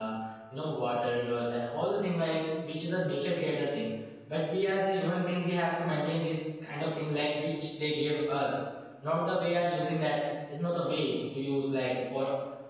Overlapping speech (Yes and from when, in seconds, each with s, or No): No